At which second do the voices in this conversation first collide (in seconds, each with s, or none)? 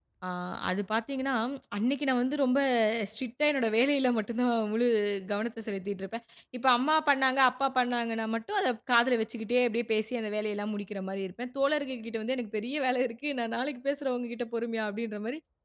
none